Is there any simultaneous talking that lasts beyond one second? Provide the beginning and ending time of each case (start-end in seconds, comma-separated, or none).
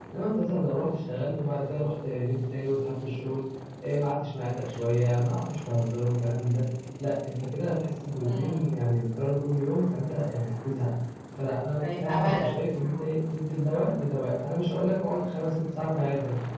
11.8-13.1